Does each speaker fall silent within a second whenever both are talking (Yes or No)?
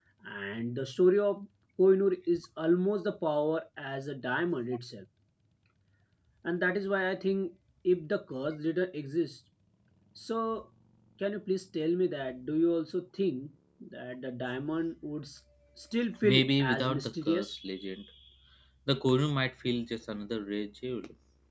No